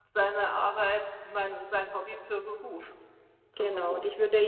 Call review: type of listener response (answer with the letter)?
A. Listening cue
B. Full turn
B